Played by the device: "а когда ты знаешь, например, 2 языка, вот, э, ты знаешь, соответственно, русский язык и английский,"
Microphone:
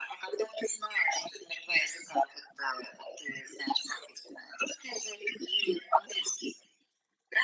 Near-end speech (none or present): none